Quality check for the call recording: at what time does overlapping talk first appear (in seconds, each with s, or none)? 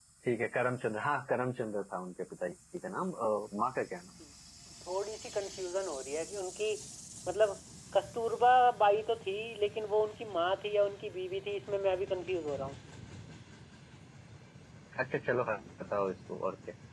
none